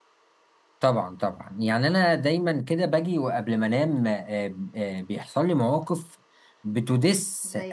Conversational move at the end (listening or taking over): listening